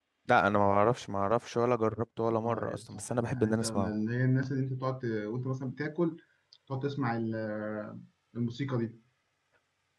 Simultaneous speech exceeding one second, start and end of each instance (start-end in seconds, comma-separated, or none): 2.4-3.9